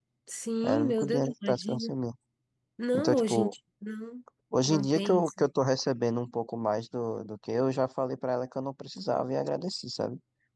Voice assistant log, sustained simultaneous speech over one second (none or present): present